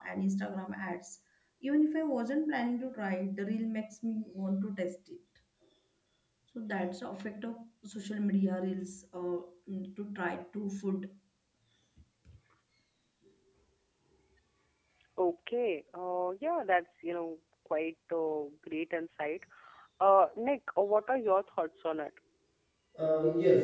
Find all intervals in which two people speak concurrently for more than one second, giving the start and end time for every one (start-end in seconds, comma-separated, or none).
none